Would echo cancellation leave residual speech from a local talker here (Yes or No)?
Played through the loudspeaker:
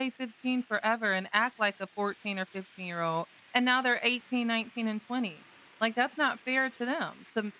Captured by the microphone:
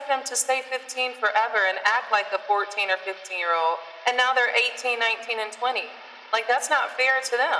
No